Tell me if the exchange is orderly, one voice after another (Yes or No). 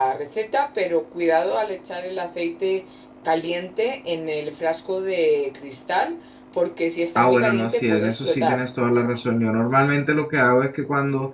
No